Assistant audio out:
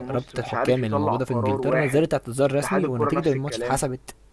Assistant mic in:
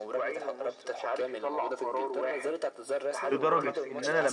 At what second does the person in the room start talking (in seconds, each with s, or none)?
3.3 s